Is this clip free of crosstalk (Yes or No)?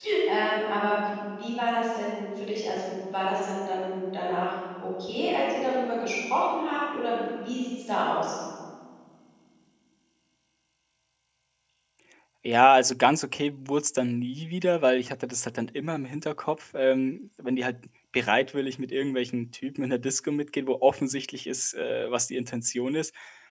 Yes